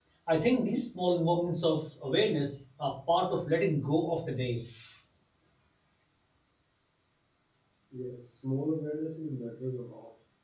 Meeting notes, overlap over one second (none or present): none